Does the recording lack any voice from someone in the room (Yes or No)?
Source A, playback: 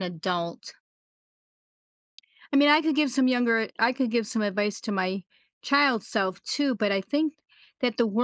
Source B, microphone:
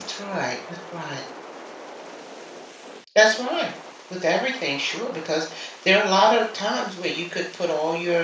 No